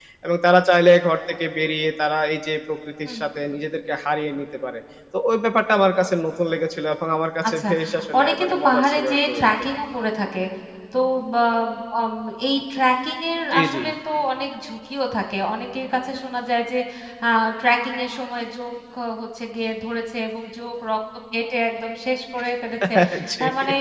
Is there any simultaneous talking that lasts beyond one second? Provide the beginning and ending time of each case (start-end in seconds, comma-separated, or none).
8.2-9.5